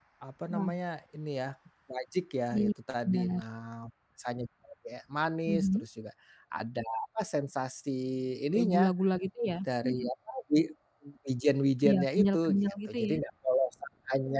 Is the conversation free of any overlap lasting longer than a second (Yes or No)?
No